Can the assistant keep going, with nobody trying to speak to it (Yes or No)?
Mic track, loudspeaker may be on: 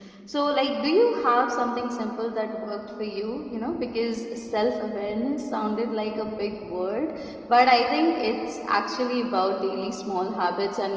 Yes